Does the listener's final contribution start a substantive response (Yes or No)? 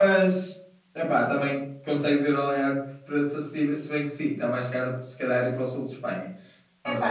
Yes